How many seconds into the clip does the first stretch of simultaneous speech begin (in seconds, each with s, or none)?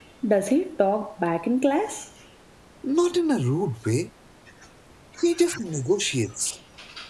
none